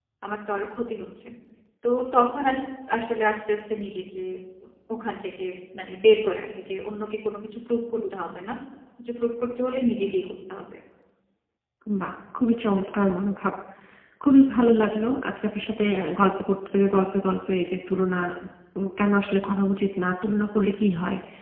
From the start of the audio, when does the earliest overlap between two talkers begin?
none

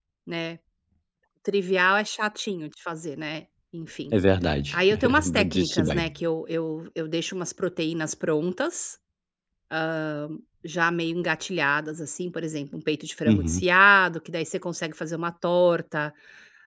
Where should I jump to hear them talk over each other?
5 s

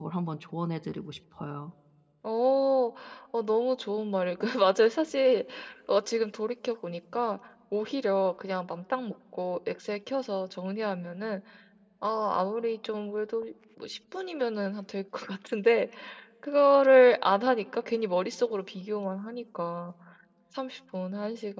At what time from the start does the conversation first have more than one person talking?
none

